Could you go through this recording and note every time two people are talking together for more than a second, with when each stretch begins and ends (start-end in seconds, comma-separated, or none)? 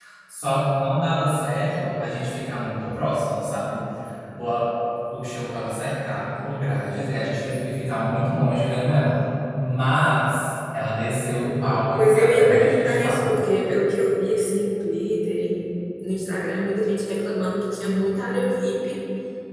12.0-13.3